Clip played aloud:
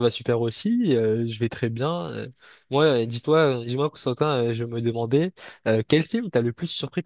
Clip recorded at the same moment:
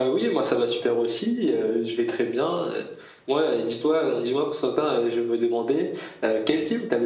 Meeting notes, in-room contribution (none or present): none